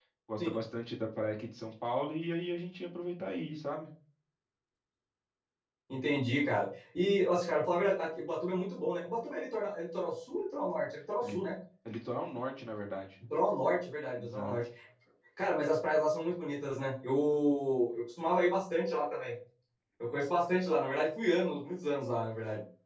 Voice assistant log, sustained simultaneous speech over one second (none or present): none